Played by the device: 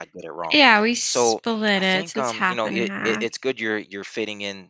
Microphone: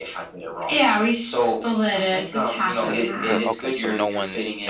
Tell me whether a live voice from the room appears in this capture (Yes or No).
Yes